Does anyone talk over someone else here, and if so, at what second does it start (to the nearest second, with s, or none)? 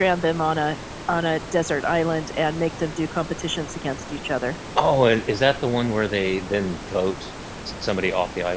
none